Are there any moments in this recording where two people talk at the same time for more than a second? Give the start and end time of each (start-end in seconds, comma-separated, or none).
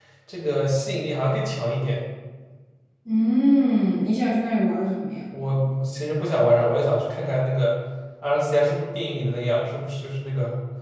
none